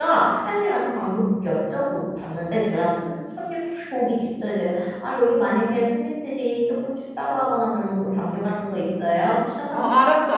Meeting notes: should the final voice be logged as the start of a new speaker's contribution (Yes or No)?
Yes